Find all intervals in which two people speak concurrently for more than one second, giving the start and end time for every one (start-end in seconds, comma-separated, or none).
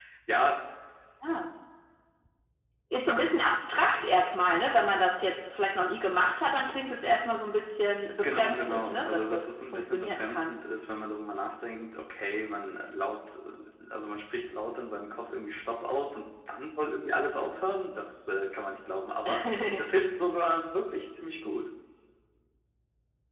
8.2-10.5